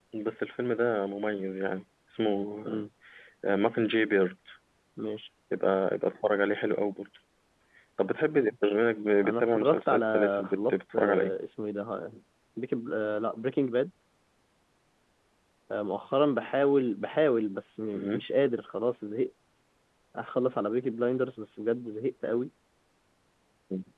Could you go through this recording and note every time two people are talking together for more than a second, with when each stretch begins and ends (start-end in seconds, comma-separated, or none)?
9.2-11.3